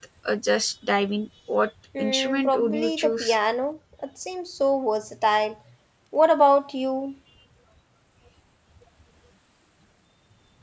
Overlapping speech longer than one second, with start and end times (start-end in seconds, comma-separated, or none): 2.0-3.4